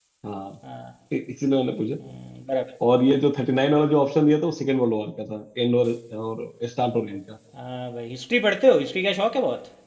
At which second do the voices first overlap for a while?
none

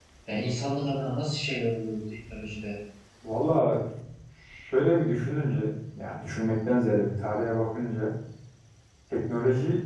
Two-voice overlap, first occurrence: none

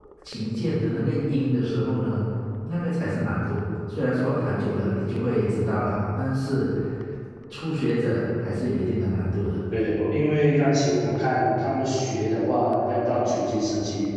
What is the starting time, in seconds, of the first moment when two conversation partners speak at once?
none

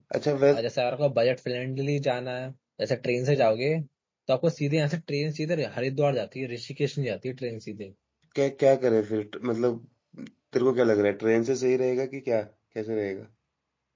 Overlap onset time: none

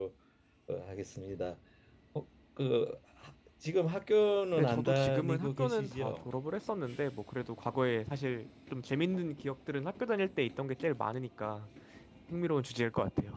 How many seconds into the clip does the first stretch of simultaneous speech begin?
4.5 s

